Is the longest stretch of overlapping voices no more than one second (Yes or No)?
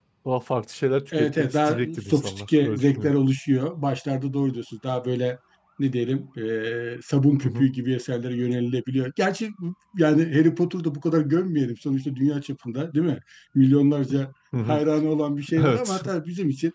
No